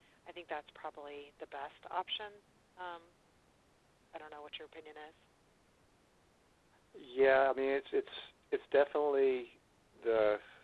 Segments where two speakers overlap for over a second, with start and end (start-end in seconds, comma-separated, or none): none